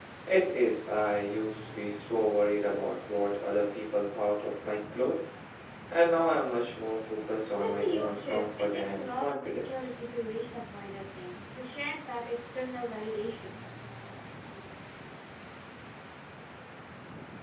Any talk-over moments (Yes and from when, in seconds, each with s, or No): Yes, from 7.6 s